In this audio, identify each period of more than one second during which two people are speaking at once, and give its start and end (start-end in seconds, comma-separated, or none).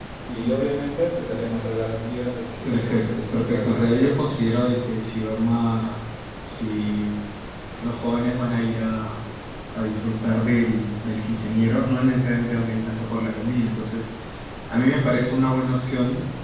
2.6-4.4